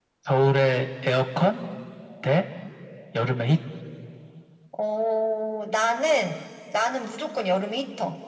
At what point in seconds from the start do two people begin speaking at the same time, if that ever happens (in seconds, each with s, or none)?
none